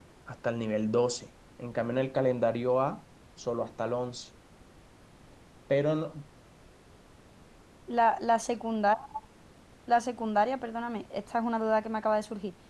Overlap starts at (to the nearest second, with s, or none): none